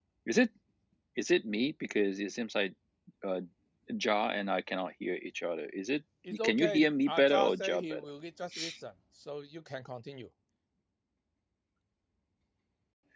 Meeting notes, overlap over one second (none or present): present